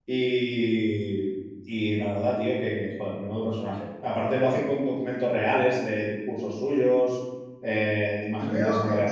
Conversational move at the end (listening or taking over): taking over